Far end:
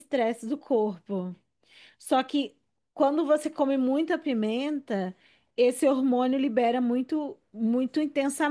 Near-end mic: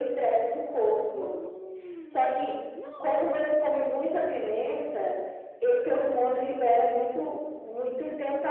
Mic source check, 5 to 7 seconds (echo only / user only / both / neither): echo only